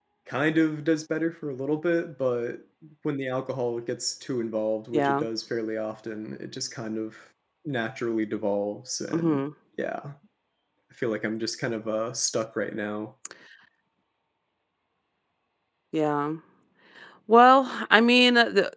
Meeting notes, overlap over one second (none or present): none